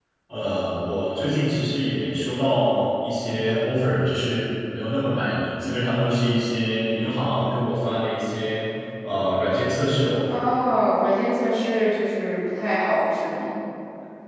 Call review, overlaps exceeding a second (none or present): none